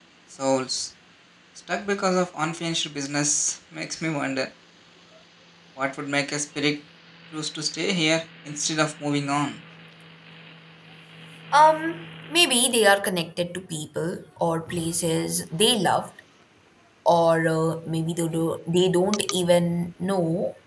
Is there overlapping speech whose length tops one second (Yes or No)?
No